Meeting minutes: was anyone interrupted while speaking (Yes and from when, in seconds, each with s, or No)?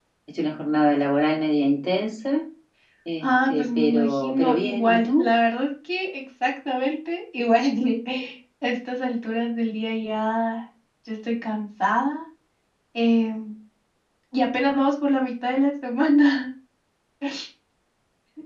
Yes, from 3.2 s